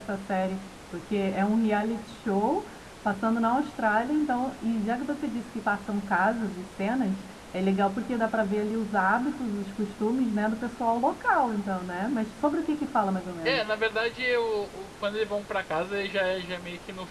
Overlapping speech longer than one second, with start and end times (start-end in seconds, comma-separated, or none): none